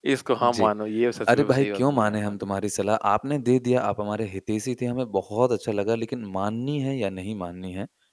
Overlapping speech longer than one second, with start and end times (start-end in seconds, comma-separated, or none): 1.3-2.5